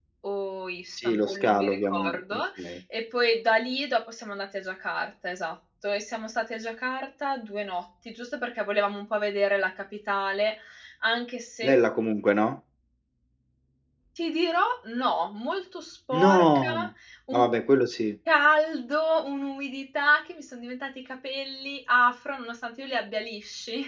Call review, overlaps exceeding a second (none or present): present